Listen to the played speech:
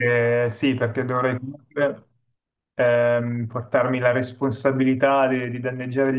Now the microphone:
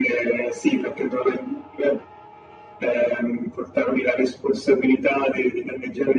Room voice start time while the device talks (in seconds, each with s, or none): none